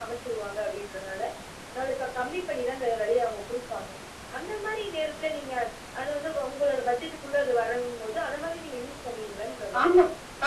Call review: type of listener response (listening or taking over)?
taking over